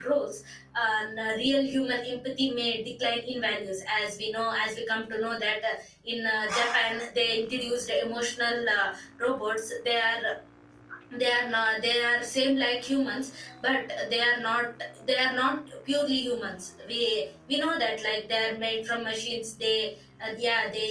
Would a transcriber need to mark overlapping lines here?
No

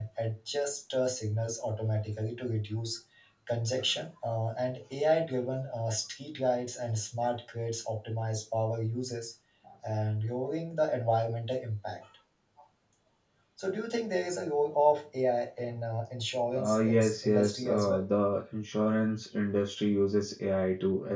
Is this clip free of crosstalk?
No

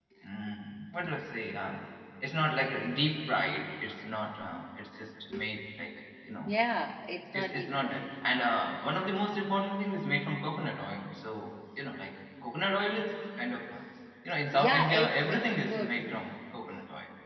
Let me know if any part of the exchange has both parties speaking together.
Yes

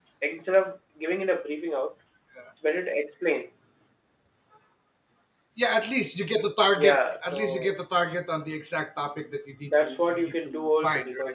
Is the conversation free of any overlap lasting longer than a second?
No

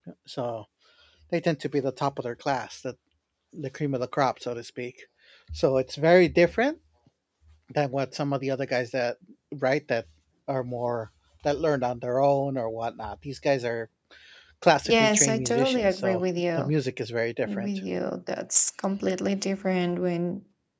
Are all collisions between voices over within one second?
No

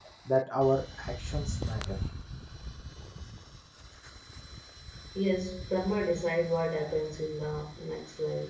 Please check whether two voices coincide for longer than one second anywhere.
No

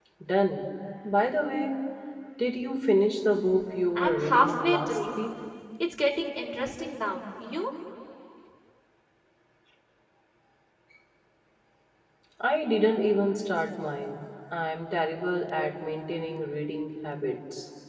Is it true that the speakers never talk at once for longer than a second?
No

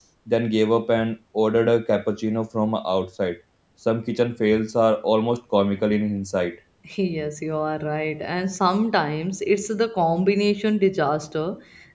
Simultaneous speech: No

